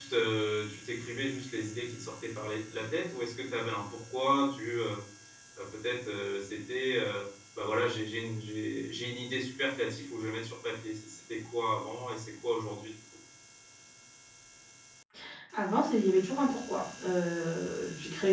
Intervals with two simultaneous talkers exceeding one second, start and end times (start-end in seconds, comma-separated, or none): none